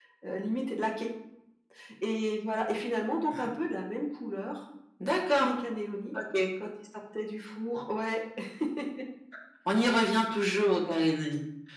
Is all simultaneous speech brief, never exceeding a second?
Yes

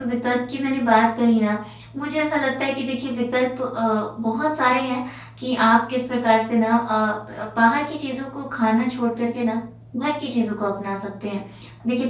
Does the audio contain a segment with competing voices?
No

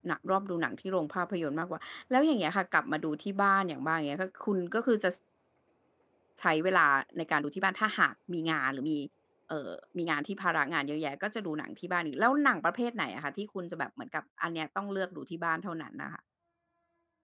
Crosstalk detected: No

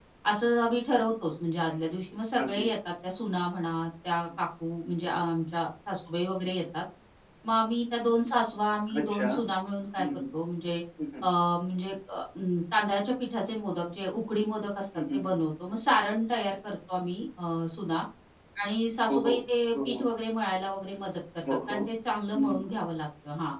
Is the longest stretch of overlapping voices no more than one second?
Yes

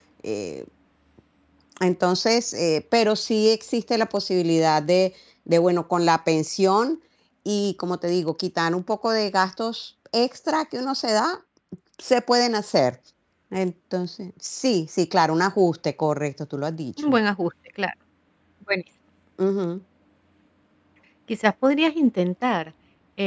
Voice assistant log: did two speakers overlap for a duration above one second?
No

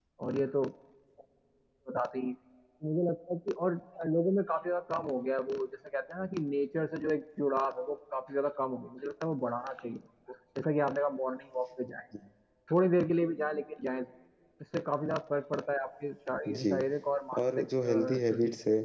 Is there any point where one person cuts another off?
Yes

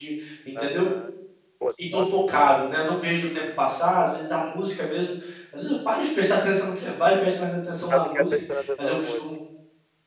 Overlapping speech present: Yes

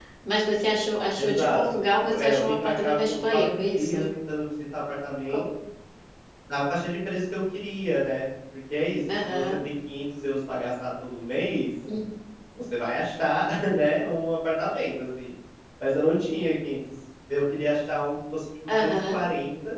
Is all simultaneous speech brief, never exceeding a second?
No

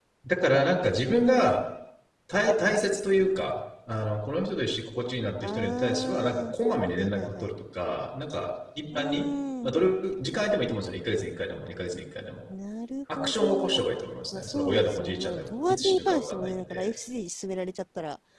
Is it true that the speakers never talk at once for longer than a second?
No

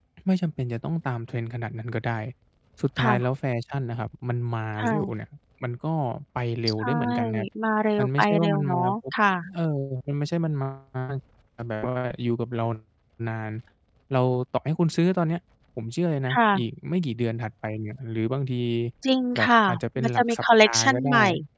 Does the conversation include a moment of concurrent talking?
Yes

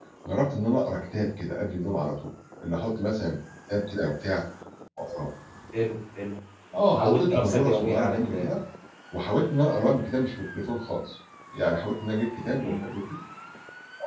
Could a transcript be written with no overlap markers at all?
No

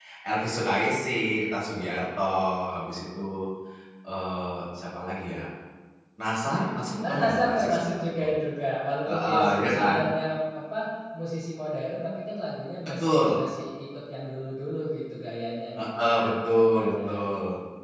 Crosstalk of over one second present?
Yes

